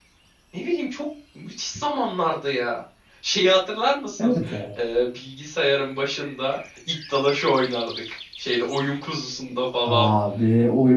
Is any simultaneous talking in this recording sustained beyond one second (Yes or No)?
No